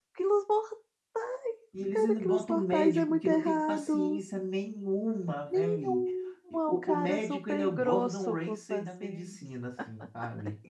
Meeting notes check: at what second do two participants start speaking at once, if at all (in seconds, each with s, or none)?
1.9 s